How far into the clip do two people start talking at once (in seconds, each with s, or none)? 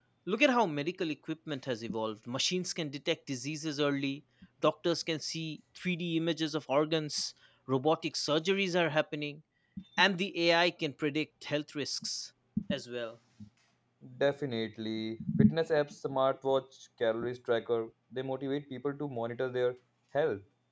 none